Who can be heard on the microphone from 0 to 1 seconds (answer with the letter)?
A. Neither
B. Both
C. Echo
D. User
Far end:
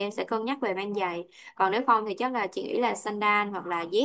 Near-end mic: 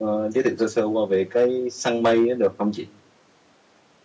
D